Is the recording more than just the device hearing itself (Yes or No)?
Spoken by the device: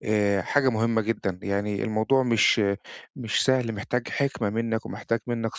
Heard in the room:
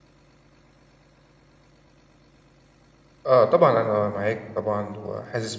Yes